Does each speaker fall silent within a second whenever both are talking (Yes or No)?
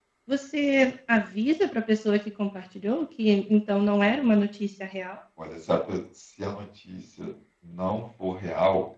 Yes